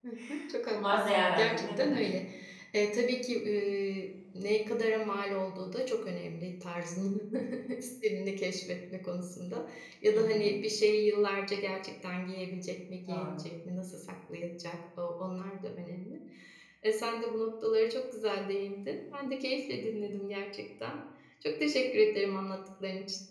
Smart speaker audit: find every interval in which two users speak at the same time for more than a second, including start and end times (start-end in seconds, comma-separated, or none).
0.7-2.1